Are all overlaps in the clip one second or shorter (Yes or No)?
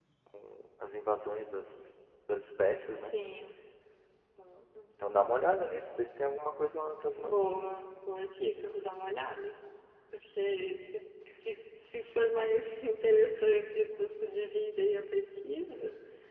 Yes